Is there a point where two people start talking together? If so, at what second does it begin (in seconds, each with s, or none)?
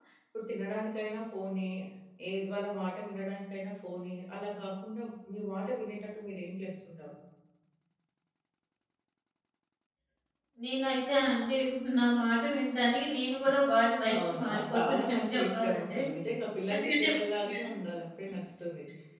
14.3 s